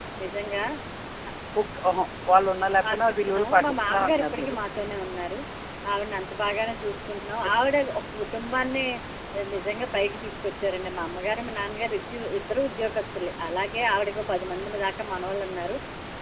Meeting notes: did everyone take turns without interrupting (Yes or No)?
No